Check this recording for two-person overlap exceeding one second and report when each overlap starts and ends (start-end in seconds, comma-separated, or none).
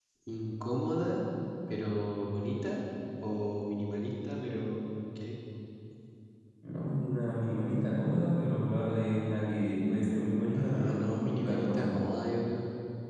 10.5-11.9